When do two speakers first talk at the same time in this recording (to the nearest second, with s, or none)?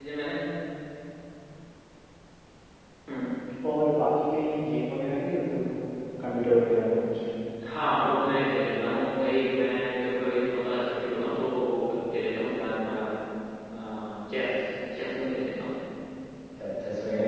none